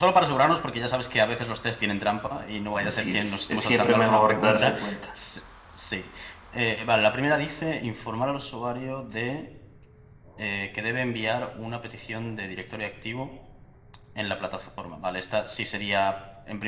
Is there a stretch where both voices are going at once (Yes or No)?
Yes